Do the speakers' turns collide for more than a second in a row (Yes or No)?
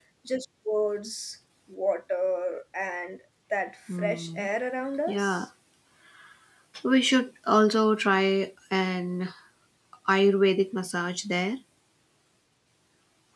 No